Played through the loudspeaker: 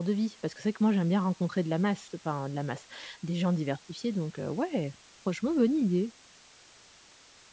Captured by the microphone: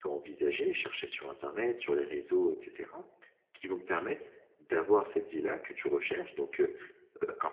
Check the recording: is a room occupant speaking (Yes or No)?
Yes